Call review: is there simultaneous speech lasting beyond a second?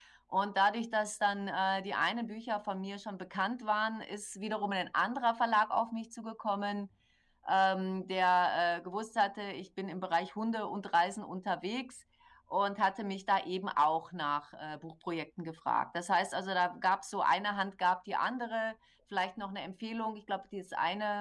No

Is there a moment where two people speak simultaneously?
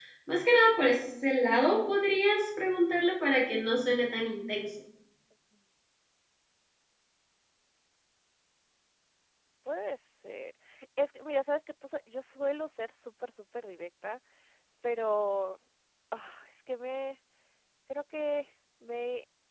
No

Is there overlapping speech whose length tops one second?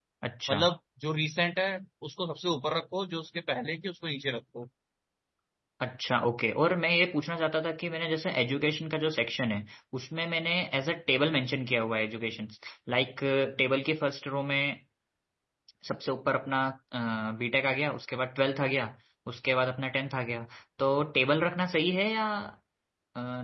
No

